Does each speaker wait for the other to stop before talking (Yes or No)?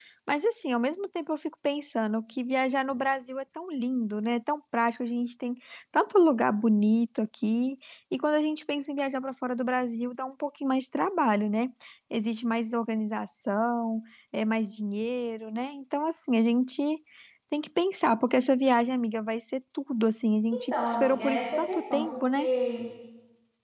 No